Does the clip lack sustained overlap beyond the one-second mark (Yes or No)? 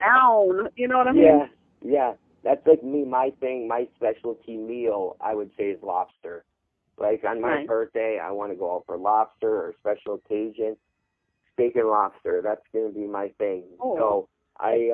Yes